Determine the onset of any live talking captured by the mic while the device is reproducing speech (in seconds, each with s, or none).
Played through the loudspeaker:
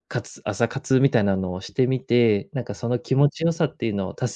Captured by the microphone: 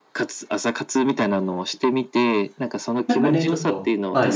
3.0 s